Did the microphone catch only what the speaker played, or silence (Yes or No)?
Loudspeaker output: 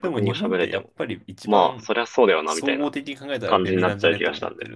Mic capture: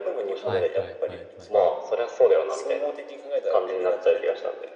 No